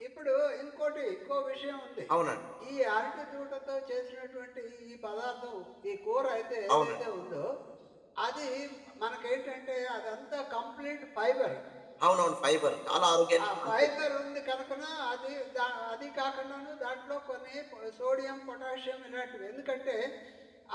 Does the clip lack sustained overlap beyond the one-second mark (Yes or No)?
Yes